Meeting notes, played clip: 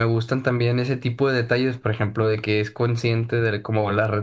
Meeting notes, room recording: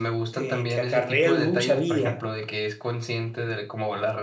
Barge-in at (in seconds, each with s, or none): 0.3 s